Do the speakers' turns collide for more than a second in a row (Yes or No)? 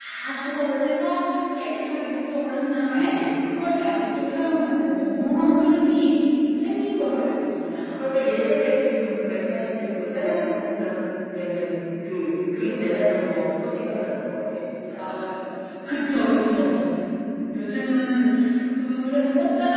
No